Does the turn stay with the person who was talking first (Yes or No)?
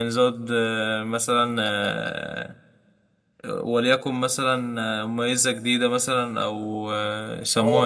No